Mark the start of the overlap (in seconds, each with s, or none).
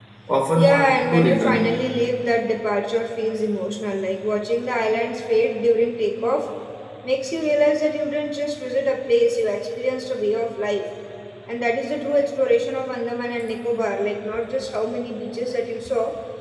0.6 s